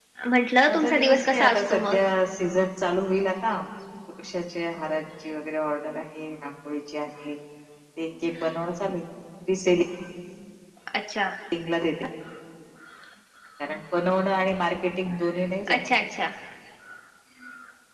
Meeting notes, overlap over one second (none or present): present